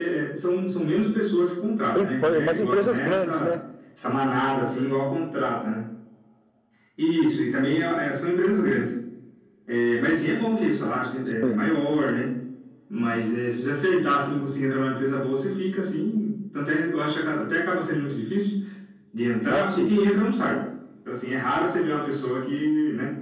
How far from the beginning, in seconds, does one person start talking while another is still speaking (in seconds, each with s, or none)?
2.0 s